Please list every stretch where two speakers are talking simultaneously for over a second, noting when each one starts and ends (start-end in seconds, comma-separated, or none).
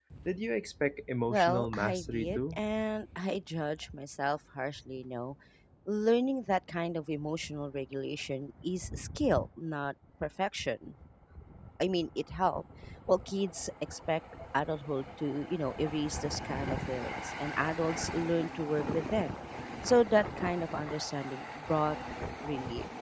1.3-2.6